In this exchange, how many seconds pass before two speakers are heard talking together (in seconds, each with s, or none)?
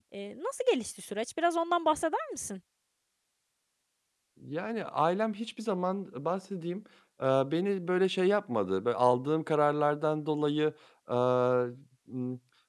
none